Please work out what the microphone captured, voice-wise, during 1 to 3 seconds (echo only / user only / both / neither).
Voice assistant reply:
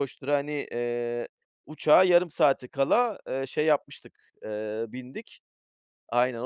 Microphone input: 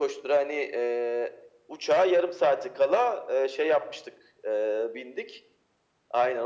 echo only